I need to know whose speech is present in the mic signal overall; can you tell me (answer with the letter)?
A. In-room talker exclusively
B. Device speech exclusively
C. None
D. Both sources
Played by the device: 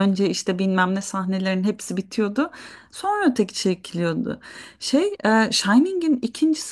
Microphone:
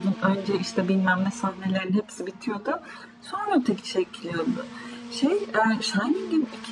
B